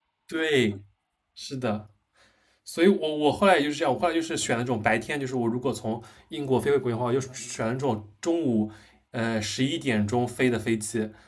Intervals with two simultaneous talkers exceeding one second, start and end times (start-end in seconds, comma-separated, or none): none